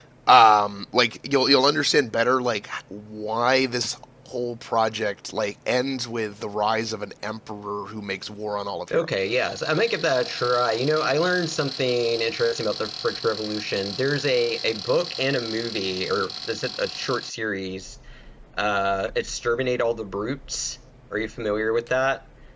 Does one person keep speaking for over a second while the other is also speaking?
No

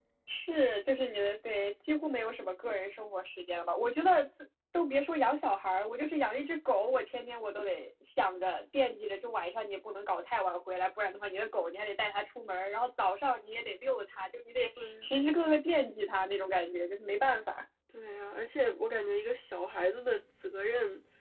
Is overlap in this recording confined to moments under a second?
Yes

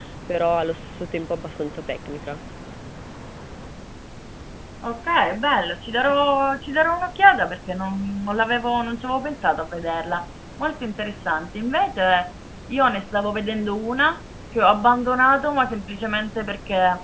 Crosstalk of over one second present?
No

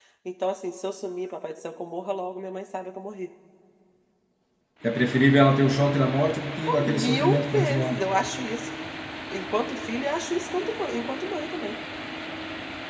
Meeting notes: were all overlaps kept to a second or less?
No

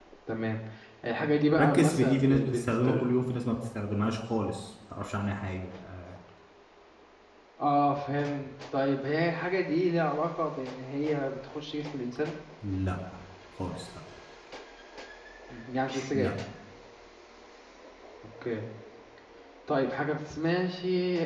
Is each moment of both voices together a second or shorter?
No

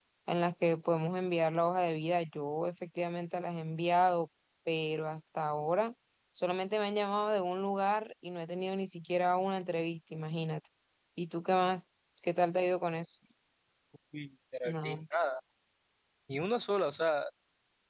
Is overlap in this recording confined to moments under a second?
Yes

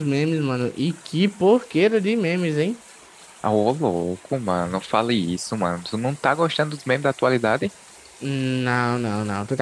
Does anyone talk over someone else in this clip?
No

